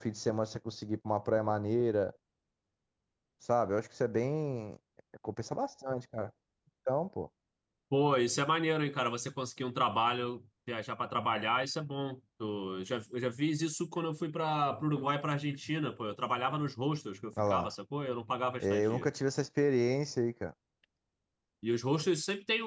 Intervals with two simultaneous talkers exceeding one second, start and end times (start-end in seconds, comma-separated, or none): none